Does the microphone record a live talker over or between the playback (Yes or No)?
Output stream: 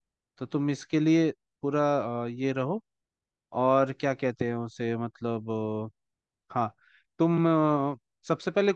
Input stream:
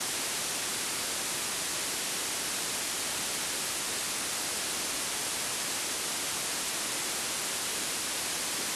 No